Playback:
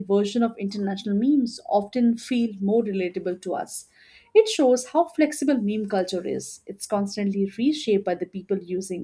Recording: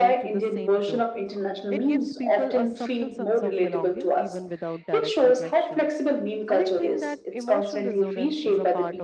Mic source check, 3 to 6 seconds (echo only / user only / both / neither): both